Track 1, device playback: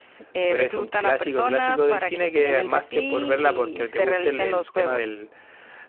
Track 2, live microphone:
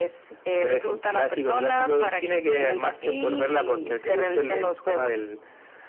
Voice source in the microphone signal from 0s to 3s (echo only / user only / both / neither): echo only